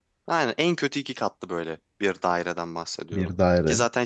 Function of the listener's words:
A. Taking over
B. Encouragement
B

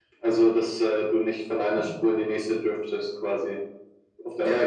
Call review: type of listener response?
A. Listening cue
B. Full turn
B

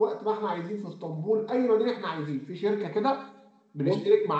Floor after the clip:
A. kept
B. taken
A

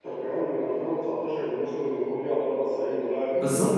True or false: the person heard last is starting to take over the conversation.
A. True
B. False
A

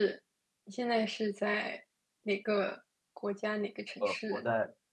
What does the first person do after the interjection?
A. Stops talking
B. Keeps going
A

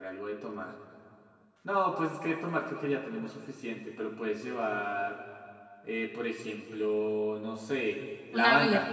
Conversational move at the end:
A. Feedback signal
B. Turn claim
A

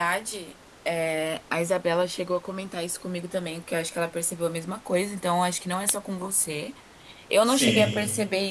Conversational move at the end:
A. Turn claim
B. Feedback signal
B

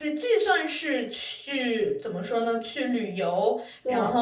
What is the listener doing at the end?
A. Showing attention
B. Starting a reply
A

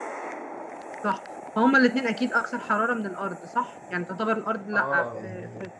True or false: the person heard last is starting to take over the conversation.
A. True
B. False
A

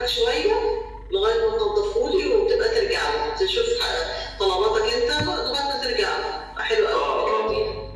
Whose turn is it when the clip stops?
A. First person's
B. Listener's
B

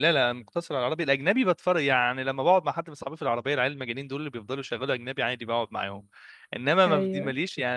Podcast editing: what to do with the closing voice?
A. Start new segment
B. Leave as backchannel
B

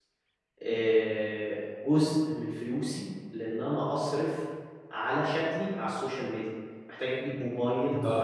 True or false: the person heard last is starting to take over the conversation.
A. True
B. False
B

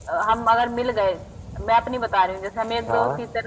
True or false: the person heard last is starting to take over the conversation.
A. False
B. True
A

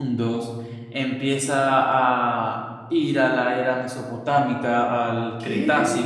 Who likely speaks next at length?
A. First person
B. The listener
A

